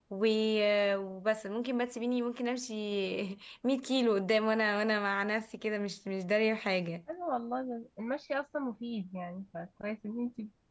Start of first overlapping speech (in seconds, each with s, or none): none